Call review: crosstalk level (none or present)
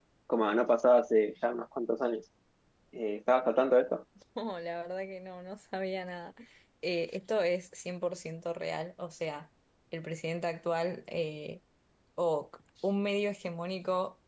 none